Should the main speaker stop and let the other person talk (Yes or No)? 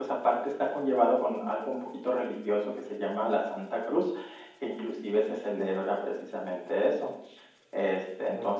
No